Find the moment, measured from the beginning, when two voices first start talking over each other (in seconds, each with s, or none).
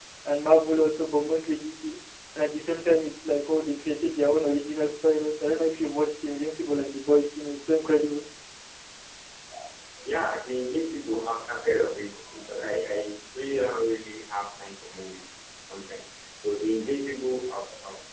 none